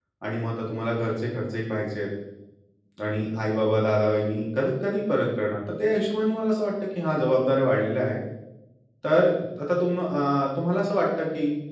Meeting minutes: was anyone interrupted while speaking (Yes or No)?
No